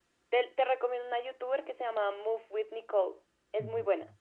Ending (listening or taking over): taking over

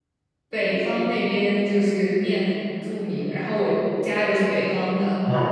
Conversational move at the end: listening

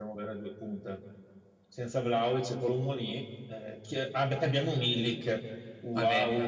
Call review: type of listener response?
taking over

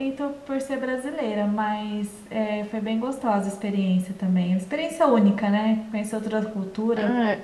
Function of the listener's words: taking over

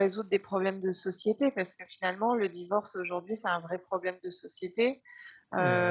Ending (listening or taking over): listening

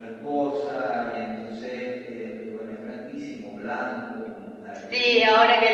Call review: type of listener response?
taking over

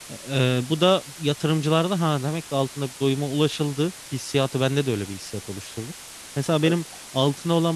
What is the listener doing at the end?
listening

